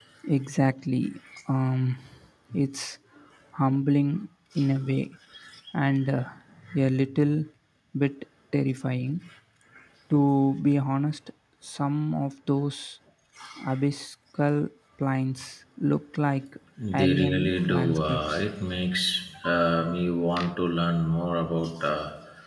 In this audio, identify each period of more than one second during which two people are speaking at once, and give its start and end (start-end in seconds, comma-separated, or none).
17.0-18.4